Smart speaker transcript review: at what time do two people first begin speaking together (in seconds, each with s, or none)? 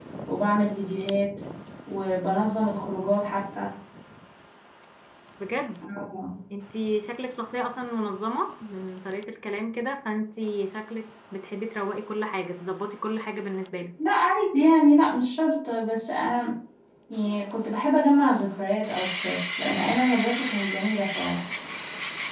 none